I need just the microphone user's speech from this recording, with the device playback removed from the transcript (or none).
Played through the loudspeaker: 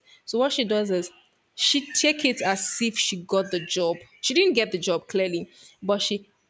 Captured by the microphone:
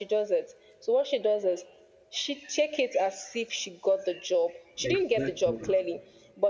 Exactly,